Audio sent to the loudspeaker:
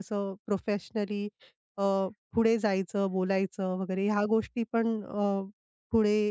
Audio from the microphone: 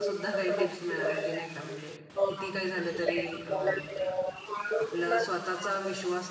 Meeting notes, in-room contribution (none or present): present